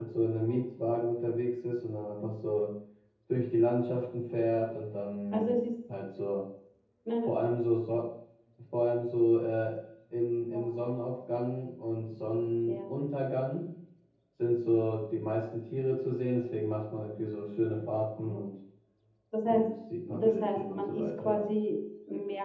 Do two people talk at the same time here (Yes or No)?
Yes